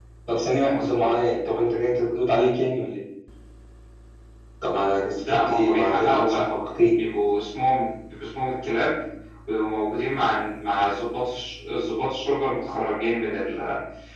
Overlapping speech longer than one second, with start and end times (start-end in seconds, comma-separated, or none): 5.2-6.4